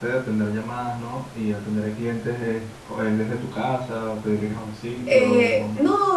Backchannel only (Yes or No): No